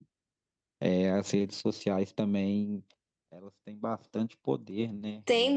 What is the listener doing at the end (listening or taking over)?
taking over